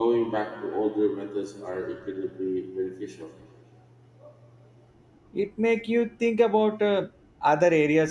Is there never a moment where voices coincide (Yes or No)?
Yes